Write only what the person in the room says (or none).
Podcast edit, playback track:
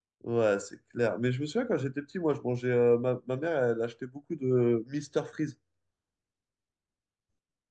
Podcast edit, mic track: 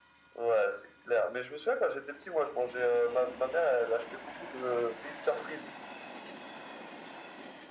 none